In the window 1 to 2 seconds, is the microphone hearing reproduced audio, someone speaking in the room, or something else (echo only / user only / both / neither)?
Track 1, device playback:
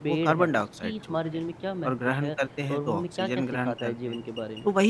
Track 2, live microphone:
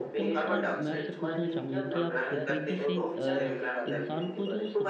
both